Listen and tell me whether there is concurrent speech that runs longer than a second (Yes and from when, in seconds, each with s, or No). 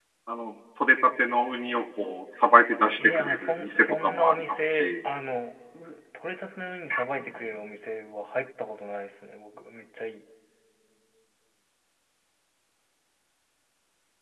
Yes, from 3.0 s